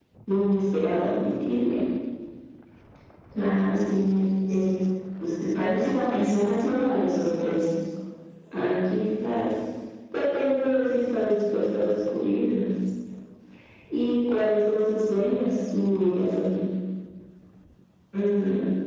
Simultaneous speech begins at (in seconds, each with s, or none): none